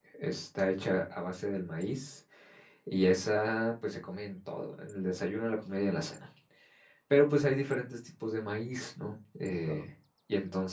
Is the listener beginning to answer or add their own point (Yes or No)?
No